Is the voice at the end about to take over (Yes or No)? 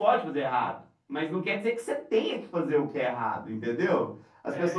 No